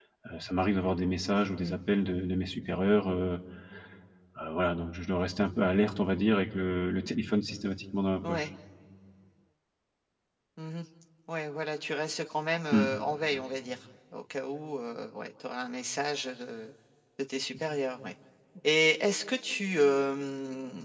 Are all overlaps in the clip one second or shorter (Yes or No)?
Yes